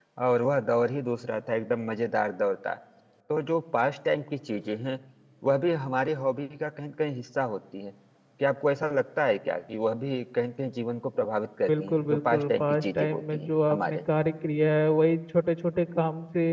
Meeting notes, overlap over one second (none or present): present